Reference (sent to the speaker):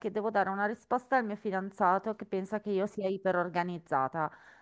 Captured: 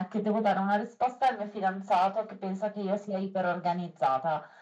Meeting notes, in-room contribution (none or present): none